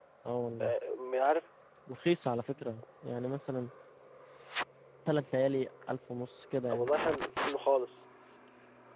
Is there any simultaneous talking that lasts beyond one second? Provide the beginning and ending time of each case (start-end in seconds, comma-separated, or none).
none